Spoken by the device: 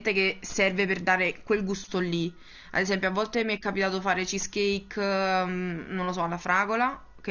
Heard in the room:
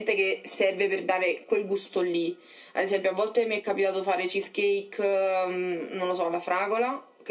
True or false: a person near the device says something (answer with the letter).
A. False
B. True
A